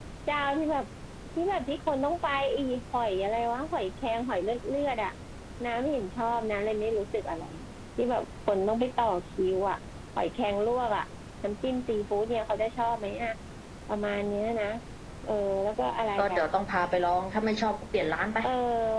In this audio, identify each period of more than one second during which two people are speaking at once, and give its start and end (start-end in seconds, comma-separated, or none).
none